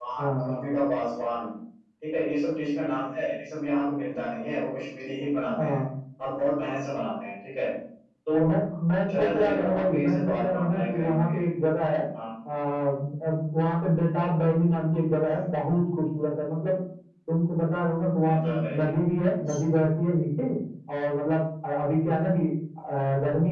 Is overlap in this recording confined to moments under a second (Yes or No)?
No